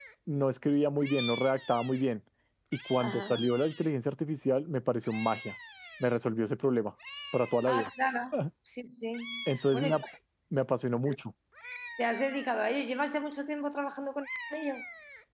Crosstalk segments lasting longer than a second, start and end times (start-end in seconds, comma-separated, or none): none